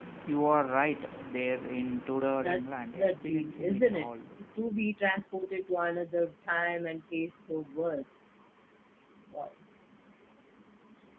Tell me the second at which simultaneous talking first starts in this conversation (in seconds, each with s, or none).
2.4 s